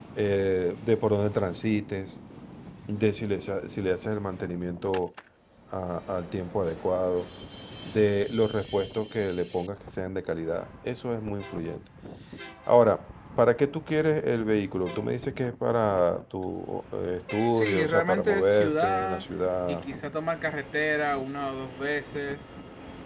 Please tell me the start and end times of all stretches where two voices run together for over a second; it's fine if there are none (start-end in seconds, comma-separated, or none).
17.5-19.2